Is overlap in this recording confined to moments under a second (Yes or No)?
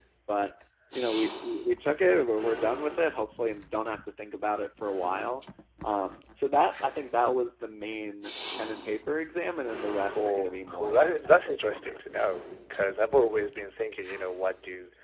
No